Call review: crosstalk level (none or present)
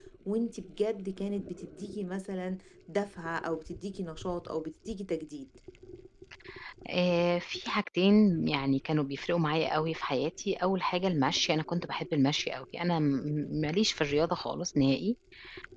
none